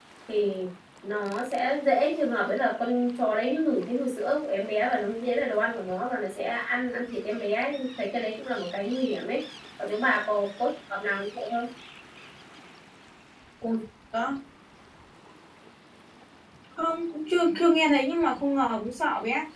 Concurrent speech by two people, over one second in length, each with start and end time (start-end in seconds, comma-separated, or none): none